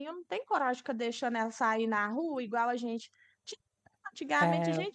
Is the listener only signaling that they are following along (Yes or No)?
Yes